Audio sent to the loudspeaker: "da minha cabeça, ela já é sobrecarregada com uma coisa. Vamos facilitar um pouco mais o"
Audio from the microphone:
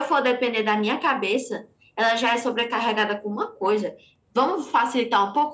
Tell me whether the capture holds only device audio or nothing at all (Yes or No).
Yes